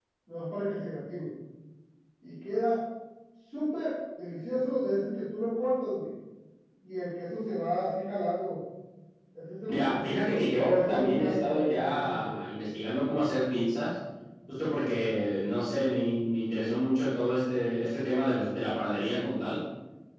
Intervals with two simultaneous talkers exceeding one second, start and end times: 9.7-12.3

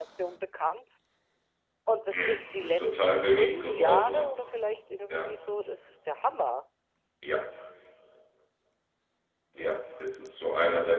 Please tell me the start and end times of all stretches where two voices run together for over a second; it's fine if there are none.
2.1-4.3

